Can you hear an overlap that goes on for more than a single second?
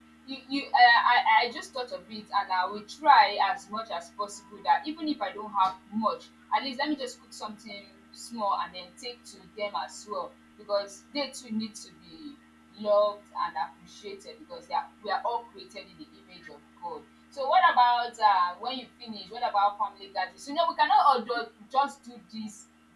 No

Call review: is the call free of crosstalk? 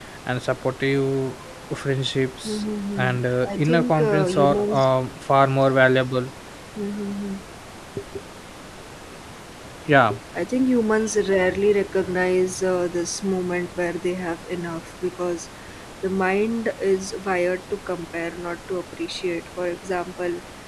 No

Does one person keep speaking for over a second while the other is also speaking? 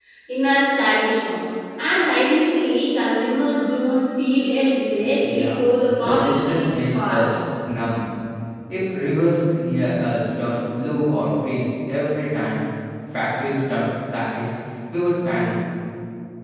Yes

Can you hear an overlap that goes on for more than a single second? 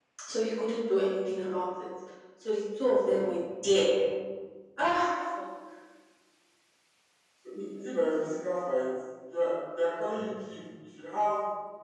No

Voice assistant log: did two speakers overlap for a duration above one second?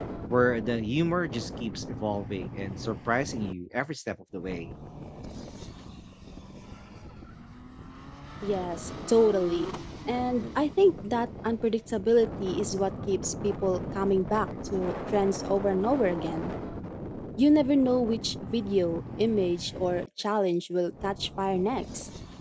No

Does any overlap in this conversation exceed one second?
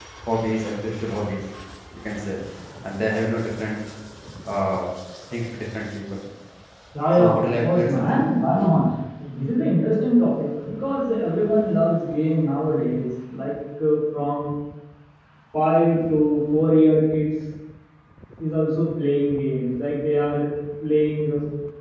Yes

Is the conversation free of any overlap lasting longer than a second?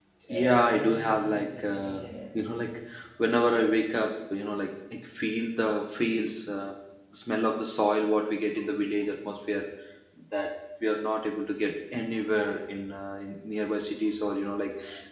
No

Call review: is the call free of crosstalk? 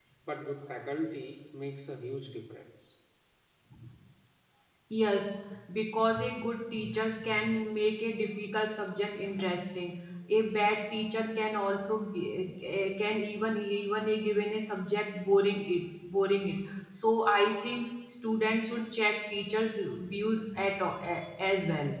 Yes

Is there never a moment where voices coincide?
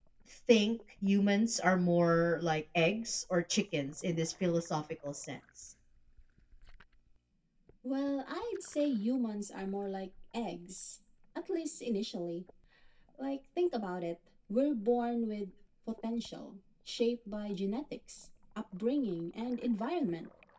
Yes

